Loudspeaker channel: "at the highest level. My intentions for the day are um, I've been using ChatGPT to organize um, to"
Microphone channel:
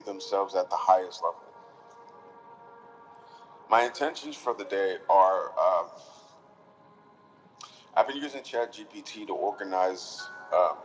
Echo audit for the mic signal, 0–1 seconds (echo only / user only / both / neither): echo only